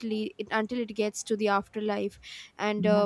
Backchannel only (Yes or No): Yes